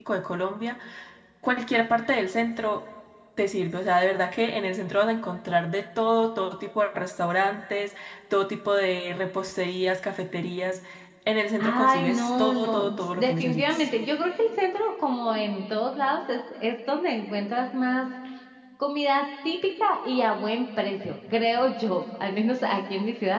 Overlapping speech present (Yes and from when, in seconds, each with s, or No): Yes, from 11.6 s